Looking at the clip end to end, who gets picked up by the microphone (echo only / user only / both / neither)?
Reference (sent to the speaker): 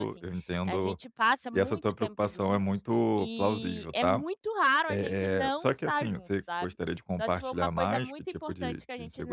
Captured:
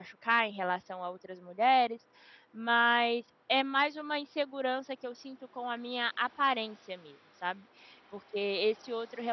user only